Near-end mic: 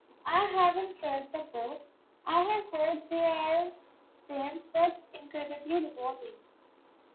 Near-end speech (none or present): none